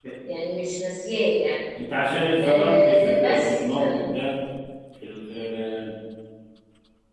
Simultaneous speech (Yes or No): Yes